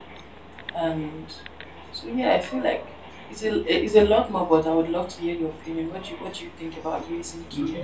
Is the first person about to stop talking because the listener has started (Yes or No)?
Yes